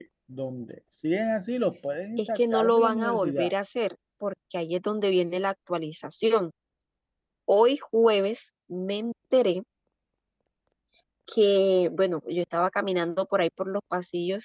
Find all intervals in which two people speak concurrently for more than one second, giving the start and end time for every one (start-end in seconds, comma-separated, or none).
2.2-3.5